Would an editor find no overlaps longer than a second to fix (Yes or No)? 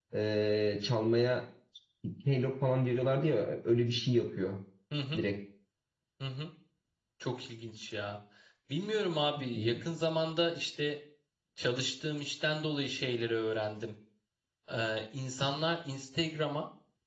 Yes